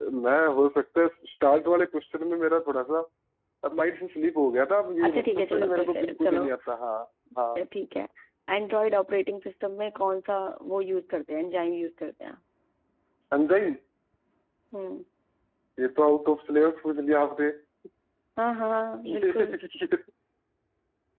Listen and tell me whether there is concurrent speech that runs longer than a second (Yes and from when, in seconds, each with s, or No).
Yes, from 5.0 s